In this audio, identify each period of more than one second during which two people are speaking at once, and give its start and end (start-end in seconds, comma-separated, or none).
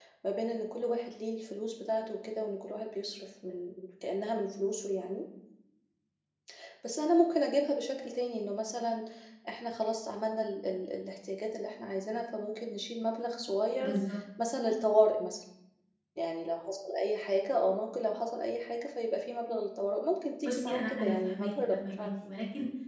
20.5-22.1